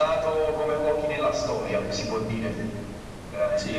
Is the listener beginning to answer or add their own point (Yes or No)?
Yes